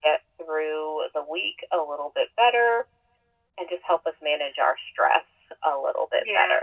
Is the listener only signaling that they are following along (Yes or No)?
No